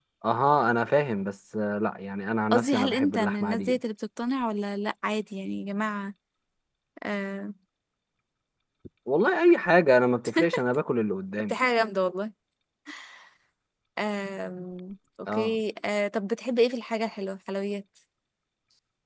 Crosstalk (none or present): present